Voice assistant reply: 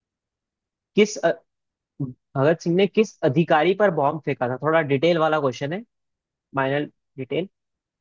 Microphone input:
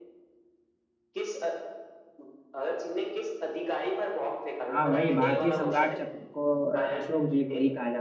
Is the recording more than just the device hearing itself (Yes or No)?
Yes